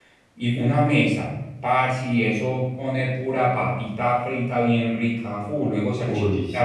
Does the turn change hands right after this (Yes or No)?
No